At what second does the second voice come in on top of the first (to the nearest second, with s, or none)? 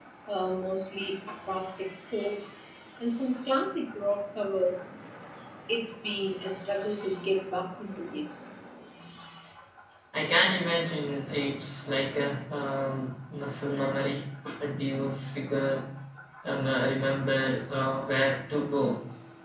none